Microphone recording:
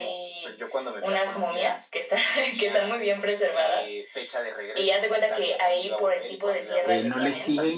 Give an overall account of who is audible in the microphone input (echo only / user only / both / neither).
both